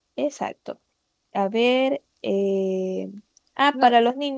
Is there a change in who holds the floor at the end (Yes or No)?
No